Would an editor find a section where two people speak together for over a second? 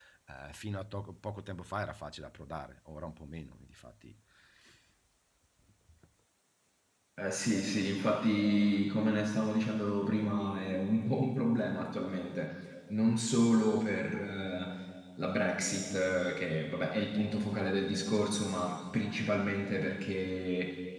No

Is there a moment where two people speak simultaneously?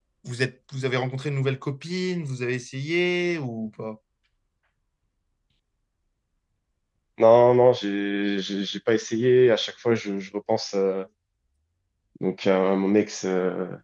No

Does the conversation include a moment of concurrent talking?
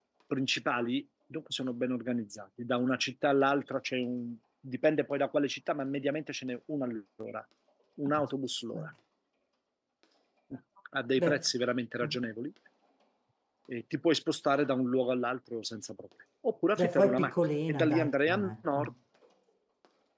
Yes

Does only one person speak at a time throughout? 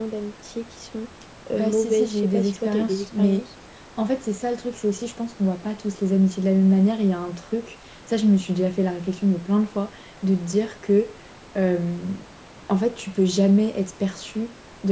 No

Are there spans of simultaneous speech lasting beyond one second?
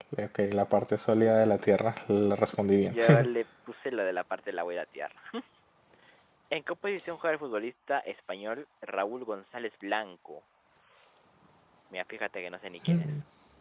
No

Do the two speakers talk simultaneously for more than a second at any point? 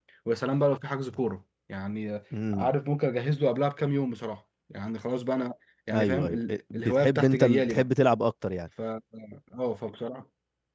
Yes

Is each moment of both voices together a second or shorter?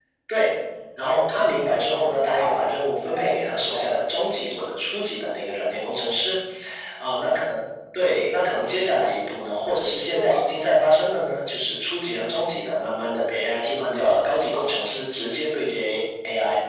No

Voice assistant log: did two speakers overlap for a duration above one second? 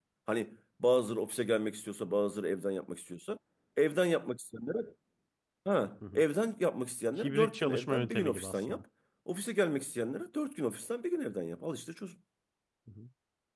Yes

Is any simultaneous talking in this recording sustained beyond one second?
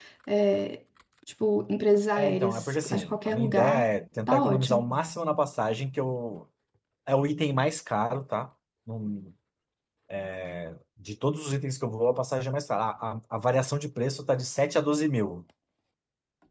Yes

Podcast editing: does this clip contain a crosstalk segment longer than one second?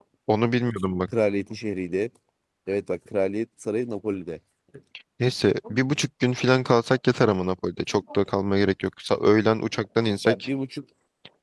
No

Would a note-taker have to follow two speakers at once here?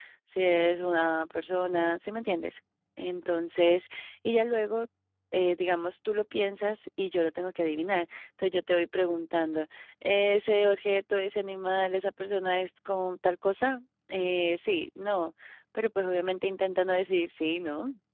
No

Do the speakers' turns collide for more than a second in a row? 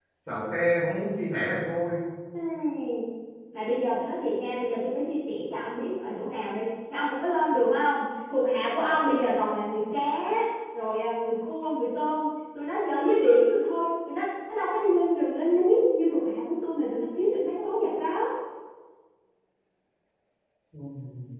No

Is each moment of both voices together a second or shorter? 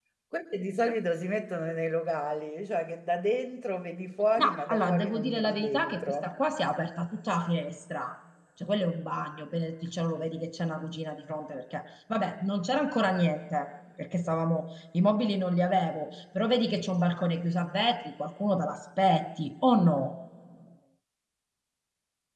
No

